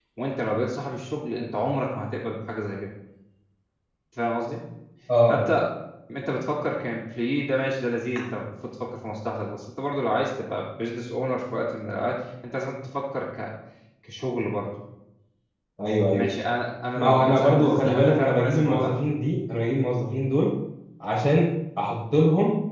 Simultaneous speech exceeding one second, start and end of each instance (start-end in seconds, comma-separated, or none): 16.9-18.9